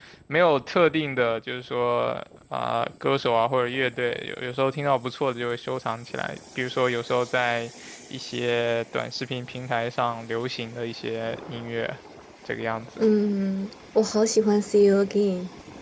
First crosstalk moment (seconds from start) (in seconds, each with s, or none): none